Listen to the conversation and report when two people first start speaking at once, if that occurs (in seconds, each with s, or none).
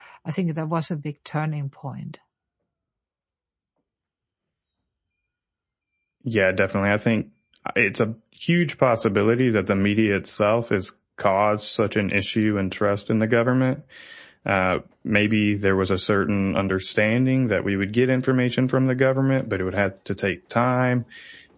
none